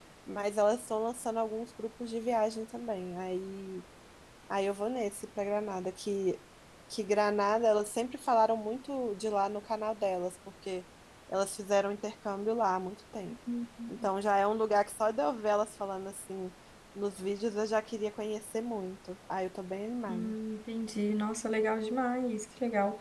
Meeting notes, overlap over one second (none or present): none